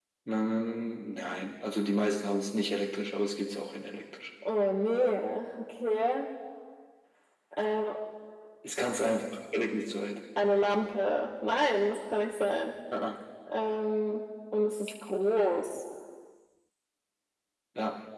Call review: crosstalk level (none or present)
none